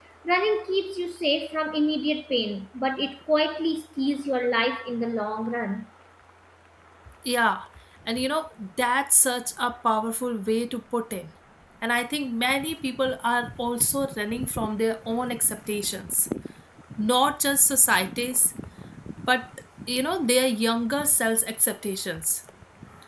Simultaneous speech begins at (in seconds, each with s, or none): none